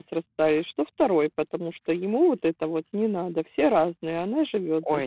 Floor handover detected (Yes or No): Yes